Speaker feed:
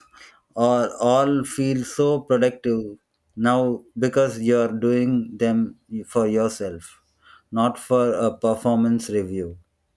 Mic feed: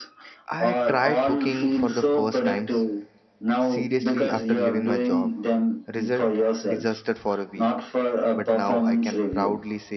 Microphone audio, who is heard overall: both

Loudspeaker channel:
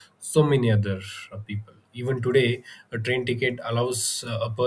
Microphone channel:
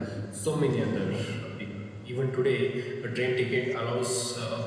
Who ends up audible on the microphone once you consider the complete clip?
echo only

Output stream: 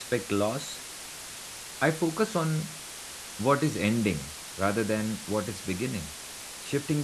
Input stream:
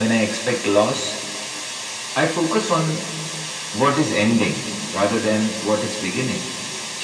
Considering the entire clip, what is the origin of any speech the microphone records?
echo only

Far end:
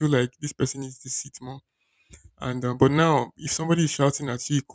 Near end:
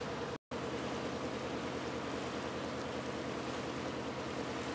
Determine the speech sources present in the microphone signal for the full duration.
neither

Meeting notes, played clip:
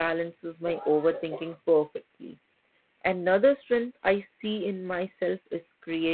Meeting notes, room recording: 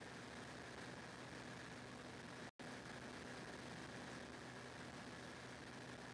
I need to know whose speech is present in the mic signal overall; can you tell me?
neither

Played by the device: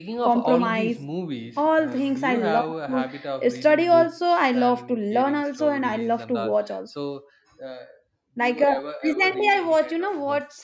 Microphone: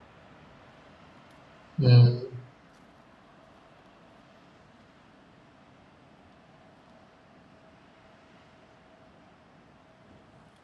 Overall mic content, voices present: user only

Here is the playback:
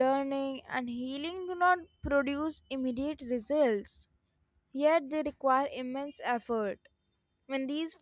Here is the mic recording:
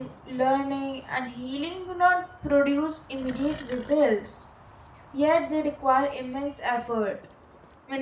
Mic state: echo only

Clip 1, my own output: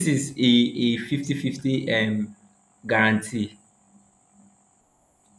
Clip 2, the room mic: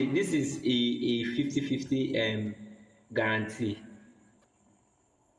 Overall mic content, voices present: echo only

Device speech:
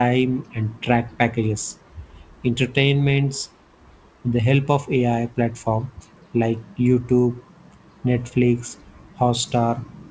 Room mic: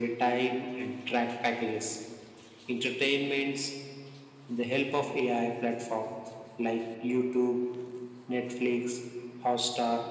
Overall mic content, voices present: echo only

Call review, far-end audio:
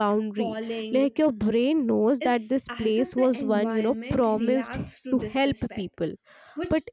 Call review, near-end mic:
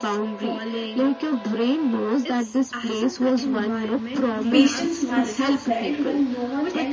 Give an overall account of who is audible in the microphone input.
both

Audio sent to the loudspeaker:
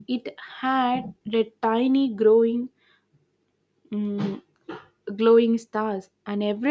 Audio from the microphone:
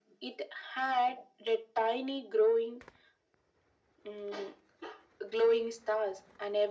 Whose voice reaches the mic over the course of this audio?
echo only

